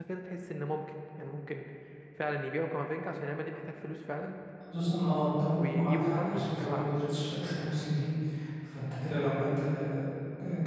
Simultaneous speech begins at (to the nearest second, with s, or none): 6 s